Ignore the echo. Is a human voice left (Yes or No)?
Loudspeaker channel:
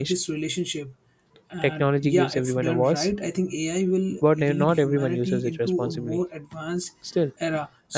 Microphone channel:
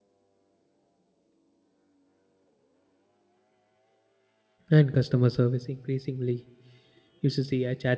Yes